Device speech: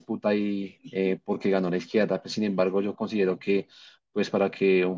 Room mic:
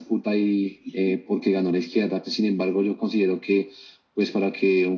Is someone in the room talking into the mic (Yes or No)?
No